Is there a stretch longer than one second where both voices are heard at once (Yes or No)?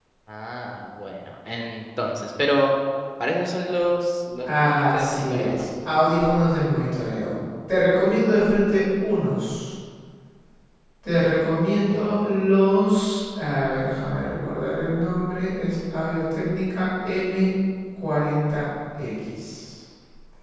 Yes